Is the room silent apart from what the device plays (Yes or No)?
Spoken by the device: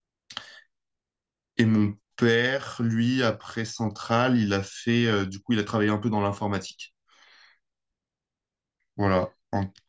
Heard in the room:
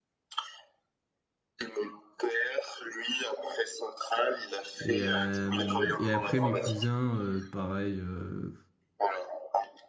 No